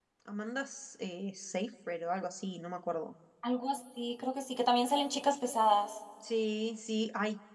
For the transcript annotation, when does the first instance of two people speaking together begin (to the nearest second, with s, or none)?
none